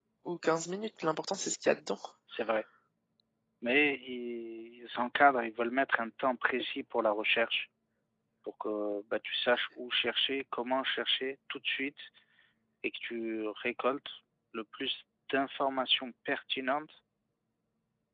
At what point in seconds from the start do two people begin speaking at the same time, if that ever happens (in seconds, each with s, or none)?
none